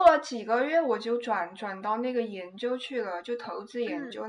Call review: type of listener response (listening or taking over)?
listening